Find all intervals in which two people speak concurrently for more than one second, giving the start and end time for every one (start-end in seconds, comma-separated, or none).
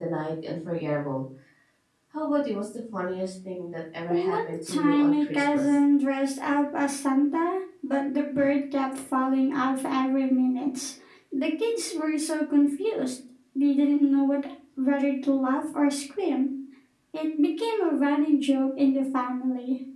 4.3-5.8